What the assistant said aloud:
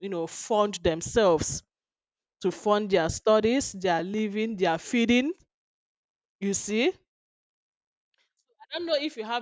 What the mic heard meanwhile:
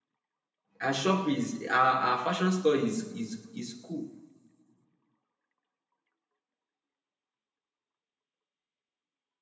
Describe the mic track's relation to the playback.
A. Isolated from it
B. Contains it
A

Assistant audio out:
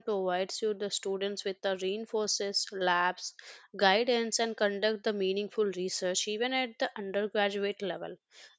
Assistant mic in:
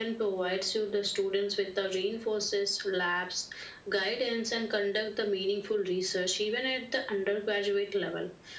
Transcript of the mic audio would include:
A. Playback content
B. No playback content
A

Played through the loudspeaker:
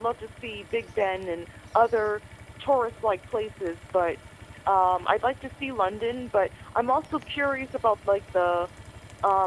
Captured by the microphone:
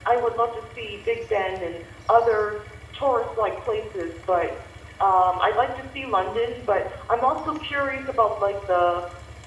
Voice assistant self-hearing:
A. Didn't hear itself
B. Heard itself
B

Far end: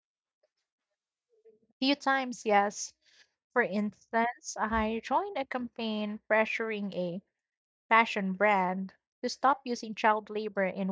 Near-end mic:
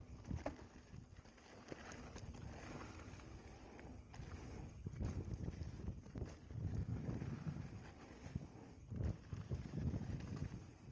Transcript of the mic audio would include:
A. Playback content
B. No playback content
B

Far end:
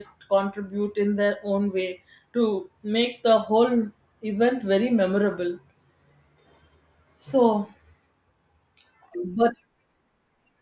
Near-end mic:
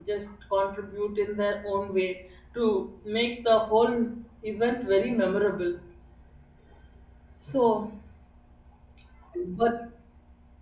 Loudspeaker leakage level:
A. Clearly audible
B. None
A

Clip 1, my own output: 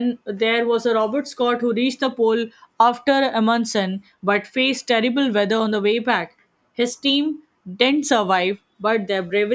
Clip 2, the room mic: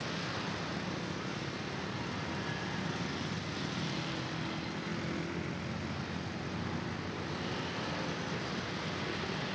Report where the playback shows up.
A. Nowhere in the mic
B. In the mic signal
A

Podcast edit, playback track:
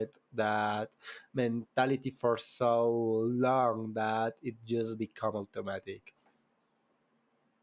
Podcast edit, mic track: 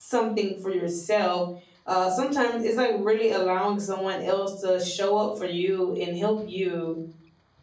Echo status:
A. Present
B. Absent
B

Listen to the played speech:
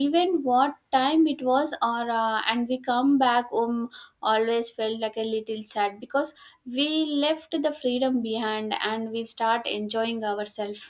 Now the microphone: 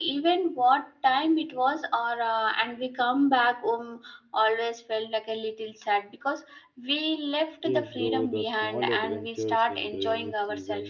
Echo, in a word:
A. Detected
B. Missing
A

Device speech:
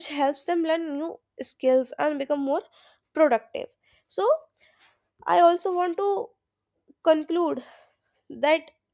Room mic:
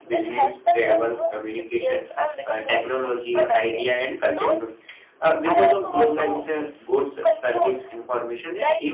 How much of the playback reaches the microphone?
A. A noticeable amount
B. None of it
A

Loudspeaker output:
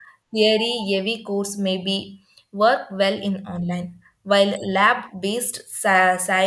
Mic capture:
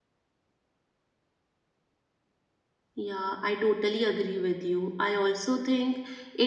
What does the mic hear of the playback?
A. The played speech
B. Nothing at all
B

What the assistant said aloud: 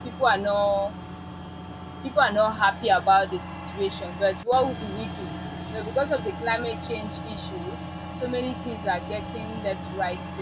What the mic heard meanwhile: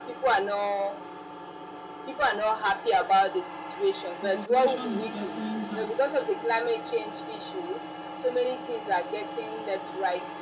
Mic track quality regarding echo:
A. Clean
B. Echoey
B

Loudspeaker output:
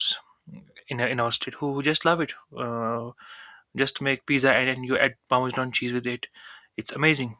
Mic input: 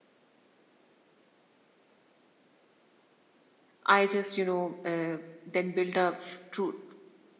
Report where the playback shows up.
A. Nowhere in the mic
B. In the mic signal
A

